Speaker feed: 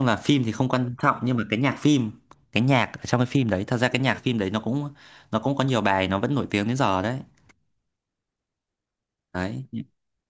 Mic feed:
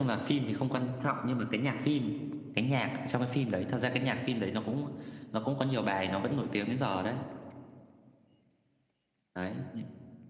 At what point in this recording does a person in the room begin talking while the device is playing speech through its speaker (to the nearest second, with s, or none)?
none